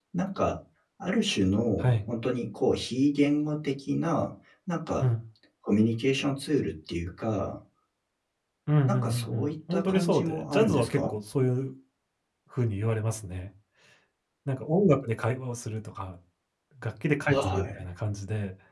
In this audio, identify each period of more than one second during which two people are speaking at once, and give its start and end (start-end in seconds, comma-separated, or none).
8.9-11.1